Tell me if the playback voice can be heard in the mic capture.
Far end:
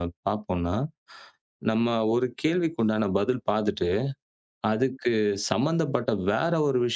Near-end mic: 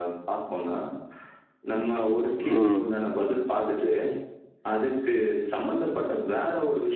Yes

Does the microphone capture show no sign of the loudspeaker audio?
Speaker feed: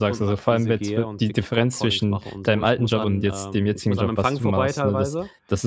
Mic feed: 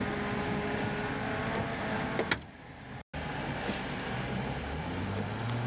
Yes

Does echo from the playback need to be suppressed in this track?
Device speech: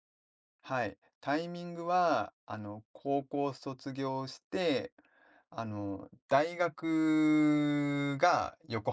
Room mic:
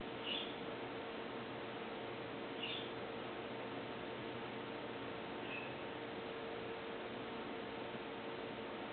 No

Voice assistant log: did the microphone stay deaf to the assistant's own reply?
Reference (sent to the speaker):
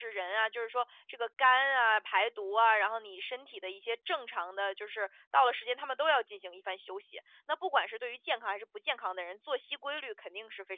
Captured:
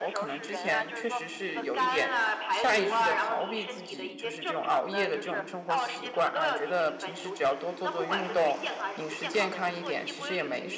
No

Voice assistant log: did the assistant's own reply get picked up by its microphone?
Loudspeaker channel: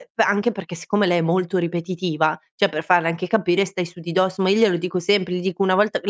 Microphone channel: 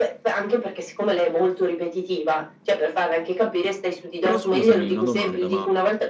Yes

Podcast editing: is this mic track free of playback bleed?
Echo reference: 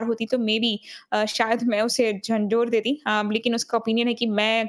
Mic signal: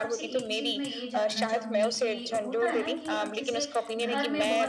No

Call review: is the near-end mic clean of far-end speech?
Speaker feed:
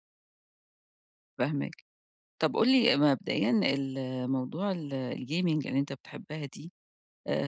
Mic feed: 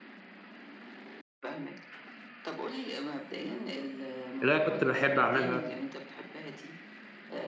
No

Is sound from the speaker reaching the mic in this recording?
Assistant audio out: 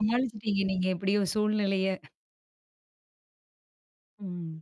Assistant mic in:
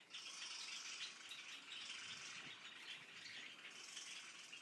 No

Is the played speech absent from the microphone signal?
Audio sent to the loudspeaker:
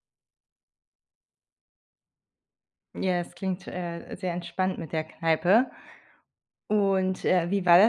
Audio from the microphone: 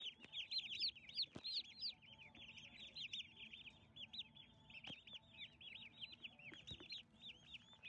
Yes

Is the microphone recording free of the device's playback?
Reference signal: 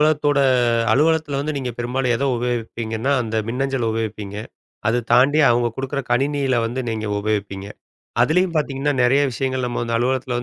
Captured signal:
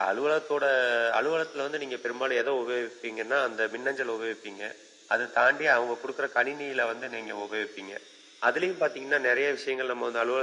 No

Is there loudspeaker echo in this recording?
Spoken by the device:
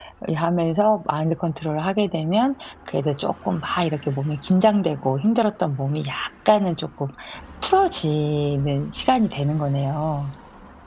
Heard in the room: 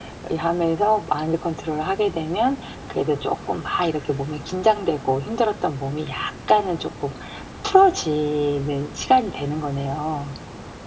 Yes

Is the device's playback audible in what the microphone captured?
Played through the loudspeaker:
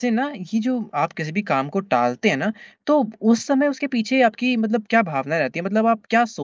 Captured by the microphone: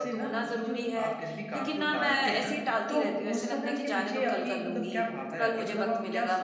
Yes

